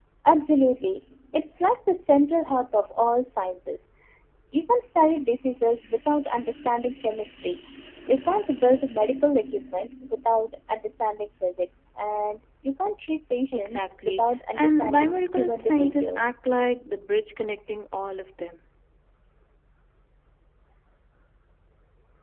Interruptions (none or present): present